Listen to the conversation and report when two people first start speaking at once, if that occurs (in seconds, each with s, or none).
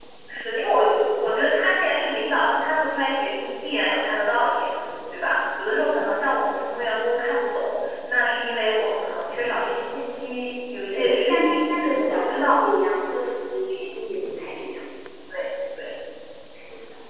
10.9 s